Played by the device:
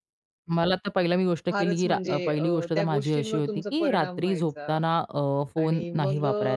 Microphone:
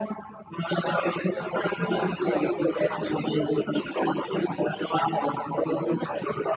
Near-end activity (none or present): present